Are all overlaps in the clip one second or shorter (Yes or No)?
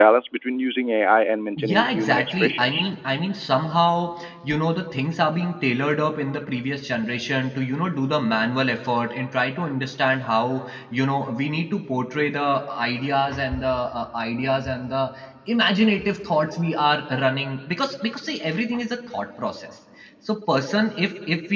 No